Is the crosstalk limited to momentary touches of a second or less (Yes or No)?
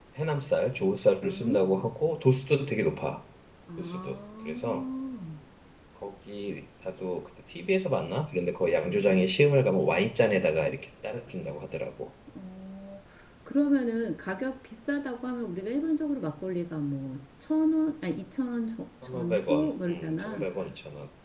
No